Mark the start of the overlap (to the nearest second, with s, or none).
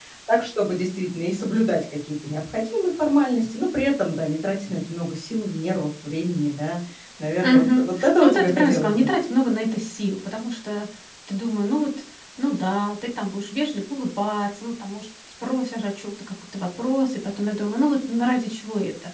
7 s